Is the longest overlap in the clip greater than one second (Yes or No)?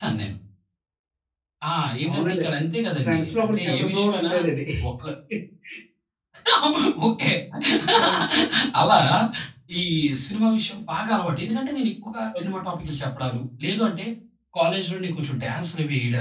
Yes